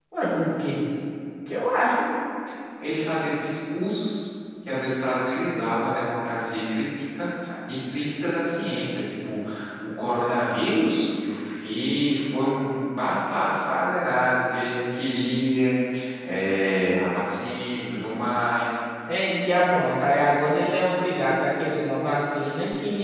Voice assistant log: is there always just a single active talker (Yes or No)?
Yes